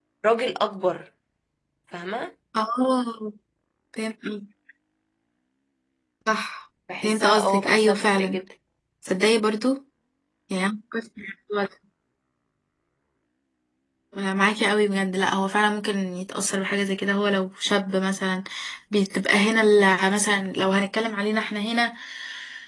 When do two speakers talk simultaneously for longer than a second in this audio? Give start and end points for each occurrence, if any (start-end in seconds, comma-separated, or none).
7.0-8.3